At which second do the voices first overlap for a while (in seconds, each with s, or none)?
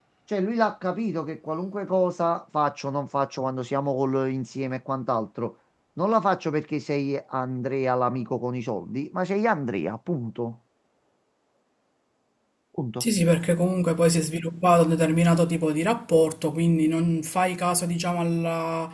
none